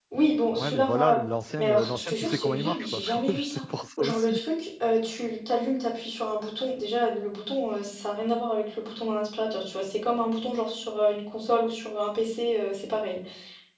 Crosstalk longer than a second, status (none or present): present